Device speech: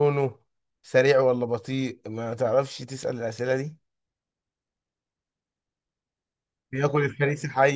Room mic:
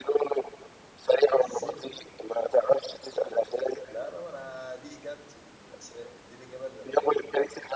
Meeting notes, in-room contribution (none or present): present